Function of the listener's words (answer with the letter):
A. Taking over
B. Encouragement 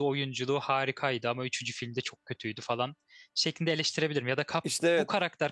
B